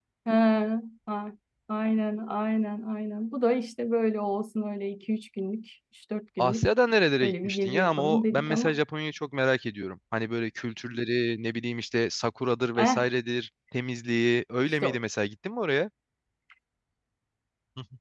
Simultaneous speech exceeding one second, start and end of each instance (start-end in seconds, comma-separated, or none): 7.2-8.8